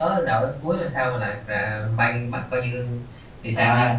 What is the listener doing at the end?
taking over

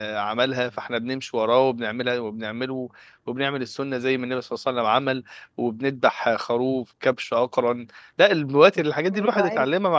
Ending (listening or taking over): listening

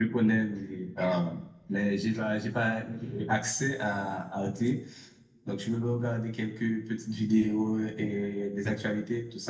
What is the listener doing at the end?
listening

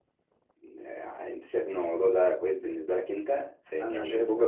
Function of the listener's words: listening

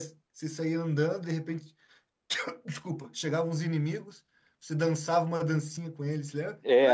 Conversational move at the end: taking over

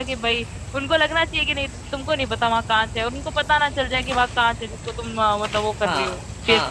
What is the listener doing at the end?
taking over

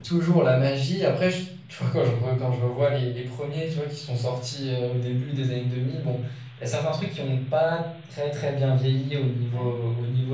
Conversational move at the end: listening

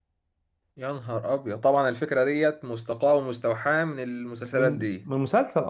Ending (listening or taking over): taking over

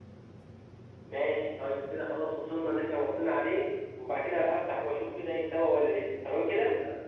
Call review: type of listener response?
taking over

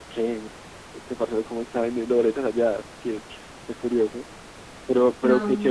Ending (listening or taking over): listening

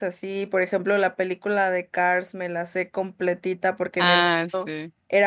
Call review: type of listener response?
listening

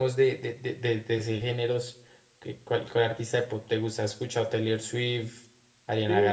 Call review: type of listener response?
taking over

